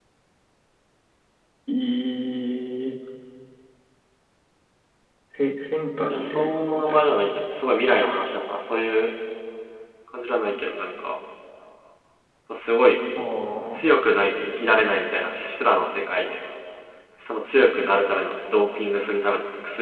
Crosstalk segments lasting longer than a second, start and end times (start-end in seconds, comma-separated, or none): 6.1-7.4